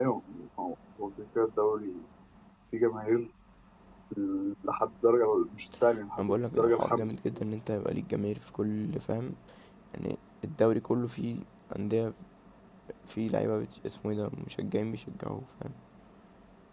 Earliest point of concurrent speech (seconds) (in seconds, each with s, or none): 6.1 s